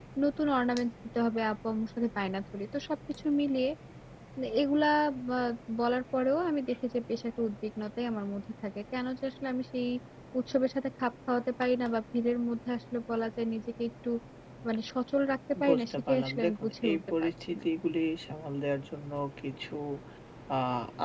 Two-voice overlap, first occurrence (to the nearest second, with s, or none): 16 s